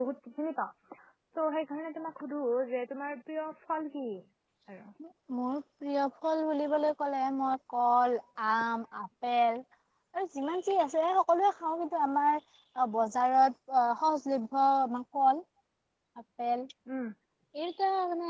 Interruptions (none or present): none